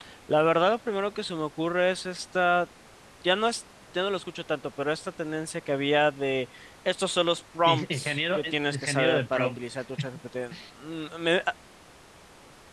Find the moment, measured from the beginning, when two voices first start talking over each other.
7.7 s

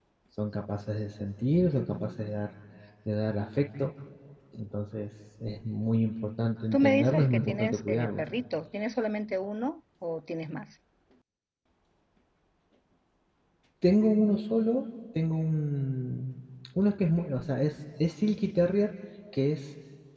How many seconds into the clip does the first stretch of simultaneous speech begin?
6.7 s

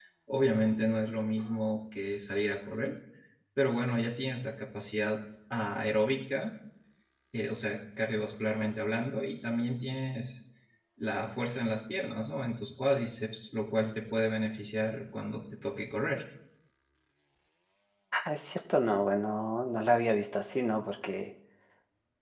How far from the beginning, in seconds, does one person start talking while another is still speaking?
none

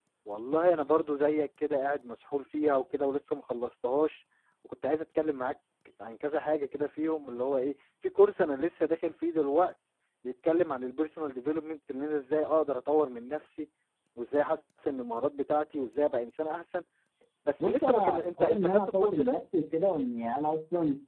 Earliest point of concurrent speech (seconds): 17.6 s

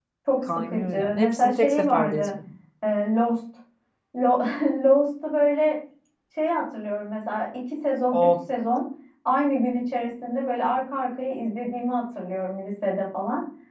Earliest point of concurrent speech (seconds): 0.5 s

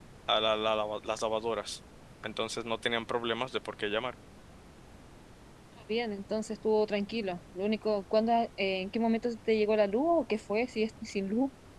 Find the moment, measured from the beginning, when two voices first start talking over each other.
none

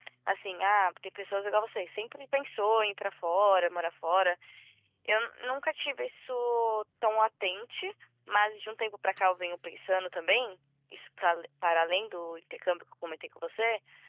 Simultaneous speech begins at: none

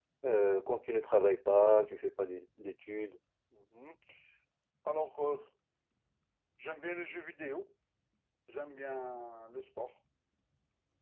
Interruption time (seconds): none

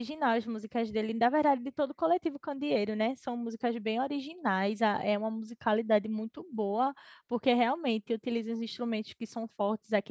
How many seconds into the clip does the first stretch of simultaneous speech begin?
none

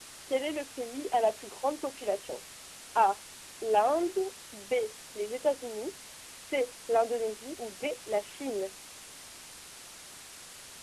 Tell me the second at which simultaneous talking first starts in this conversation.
none

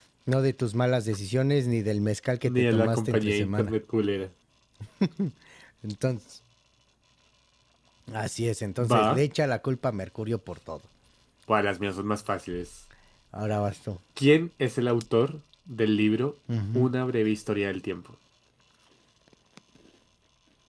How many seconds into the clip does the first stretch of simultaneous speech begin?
2.4 s

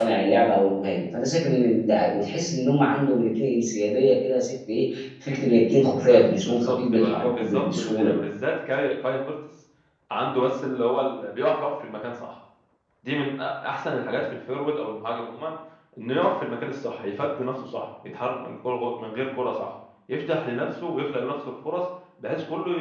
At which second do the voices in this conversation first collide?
5.7 s

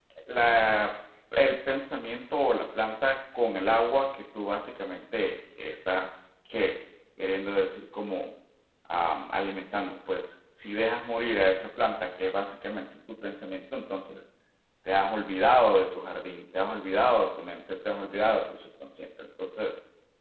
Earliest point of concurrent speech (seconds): none

